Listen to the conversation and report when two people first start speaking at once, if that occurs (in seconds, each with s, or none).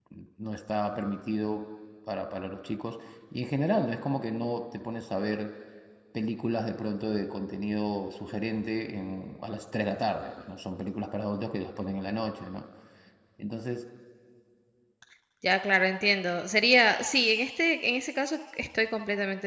none